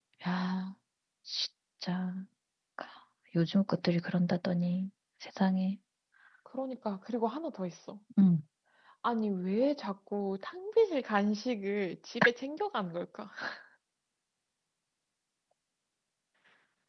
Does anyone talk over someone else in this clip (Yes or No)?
No